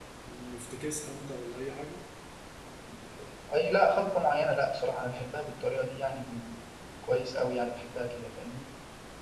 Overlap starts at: none

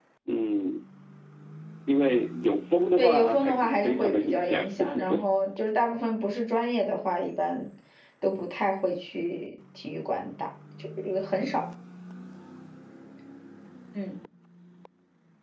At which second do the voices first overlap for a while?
3 s

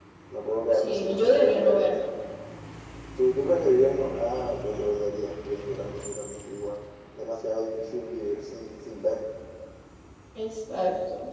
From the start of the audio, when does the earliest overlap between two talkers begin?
1 s

